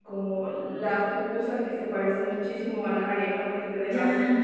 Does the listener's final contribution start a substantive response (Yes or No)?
Yes